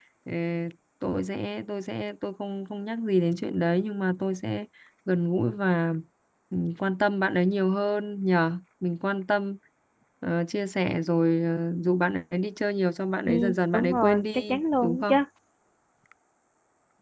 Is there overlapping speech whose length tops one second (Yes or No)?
Yes